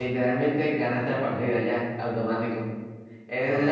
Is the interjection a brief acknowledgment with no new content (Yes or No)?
Yes